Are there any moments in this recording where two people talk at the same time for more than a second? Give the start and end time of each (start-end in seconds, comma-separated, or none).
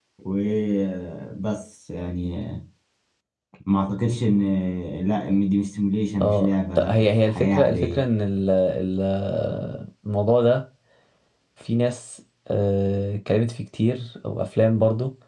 6.2-8.0